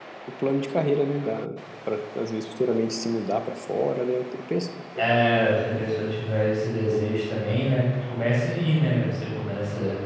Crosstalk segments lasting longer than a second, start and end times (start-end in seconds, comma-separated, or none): none